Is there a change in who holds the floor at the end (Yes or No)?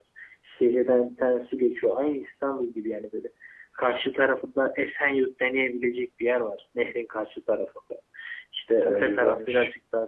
No